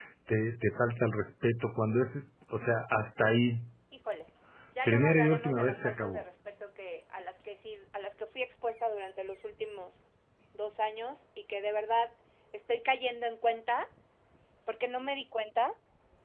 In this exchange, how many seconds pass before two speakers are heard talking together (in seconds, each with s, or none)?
4.8 s